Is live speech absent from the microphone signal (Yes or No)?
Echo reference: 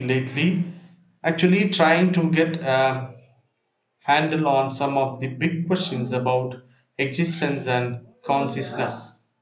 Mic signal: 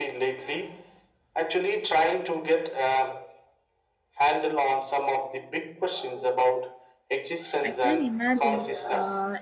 No